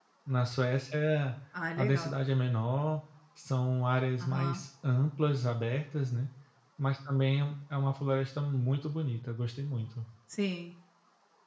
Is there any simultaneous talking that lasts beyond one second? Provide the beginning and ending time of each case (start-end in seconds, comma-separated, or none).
none